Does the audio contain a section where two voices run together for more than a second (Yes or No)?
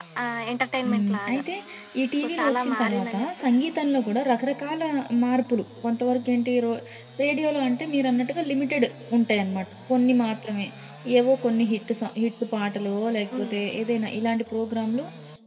Yes